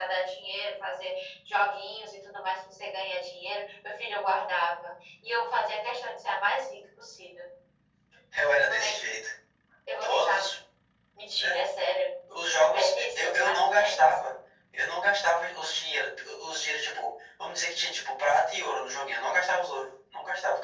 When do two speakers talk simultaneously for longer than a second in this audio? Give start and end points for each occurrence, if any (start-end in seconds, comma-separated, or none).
12.6-14.2